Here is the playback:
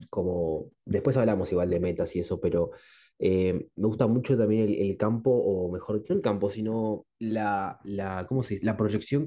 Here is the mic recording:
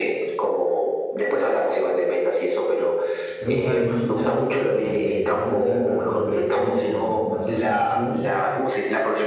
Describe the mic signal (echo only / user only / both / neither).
both